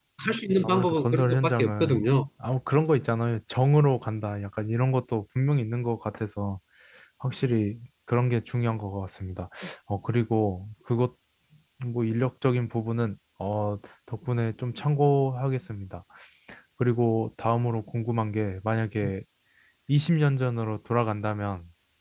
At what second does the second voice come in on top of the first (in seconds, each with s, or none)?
0.6 s